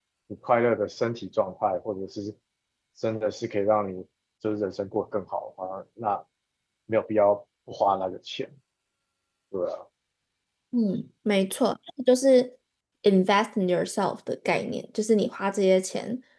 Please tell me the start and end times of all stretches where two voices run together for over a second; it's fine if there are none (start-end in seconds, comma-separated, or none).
none